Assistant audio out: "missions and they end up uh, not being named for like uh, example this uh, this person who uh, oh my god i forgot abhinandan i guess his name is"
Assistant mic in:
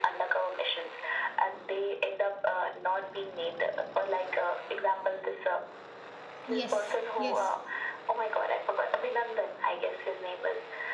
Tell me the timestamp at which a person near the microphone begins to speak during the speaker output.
6.5 s

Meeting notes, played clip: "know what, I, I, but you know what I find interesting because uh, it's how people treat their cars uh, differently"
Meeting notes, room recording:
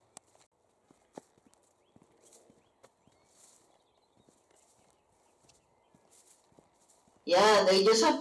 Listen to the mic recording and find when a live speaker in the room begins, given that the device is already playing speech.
7.2 s

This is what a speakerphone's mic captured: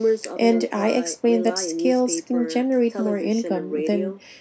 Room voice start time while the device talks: none

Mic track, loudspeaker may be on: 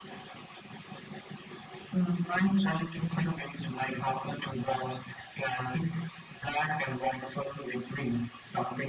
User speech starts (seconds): none

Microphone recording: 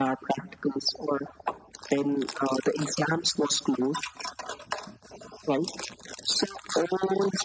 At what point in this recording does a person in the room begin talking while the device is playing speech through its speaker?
none

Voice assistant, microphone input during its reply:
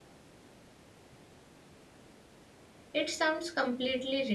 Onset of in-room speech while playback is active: 2.9 s

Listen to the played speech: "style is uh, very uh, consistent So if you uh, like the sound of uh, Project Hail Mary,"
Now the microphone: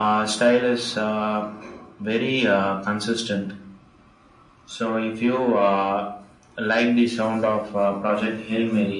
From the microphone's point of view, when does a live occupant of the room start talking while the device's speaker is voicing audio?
none

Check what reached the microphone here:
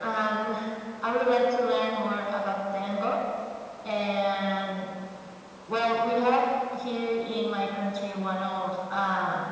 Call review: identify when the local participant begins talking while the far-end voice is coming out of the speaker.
none

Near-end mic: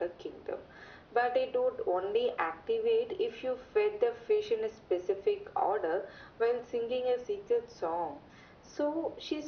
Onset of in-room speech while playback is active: none

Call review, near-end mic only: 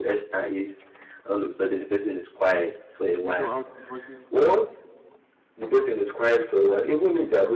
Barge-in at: 3.2 s

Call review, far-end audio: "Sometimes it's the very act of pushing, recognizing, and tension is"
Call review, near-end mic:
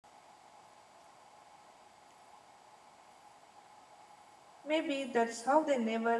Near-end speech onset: 4.6 s

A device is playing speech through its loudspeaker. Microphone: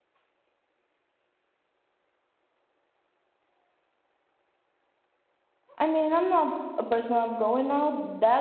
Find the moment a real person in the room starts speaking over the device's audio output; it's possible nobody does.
5.8 s

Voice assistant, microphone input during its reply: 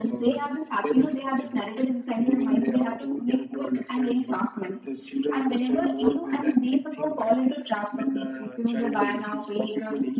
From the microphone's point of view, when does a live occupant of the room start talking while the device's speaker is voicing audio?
none

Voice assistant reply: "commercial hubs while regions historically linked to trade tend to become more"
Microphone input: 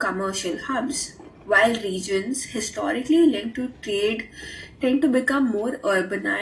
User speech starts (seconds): none

